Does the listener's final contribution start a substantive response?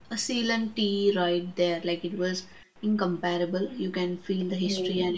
No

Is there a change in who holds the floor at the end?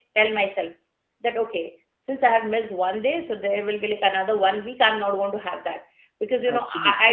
No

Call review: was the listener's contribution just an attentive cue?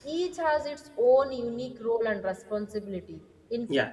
Yes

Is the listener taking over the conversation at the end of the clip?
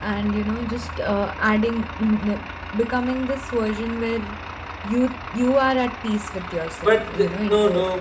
Yes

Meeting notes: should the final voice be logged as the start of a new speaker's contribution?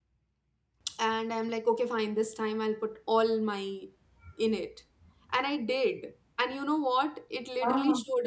No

